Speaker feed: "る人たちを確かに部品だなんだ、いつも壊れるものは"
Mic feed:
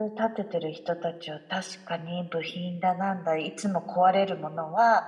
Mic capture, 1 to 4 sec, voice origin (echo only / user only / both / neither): echo only